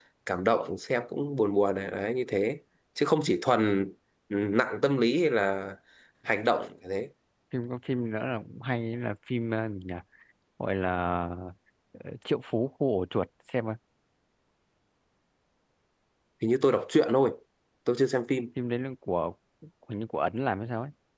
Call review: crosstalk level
none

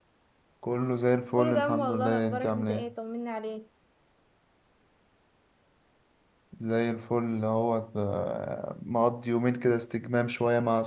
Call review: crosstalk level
present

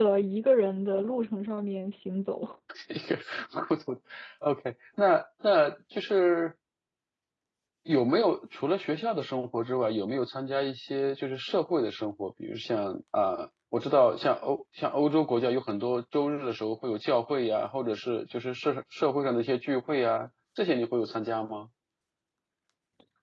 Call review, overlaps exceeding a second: none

